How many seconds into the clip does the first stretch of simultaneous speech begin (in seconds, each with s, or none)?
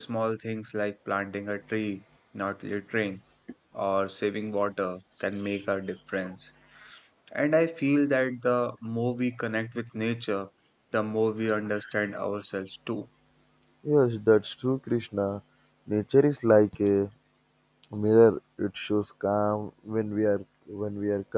none